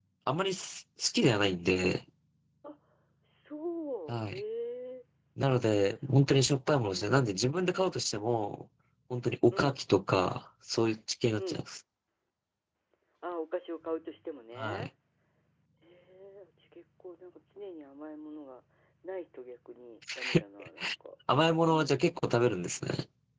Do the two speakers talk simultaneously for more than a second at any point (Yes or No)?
No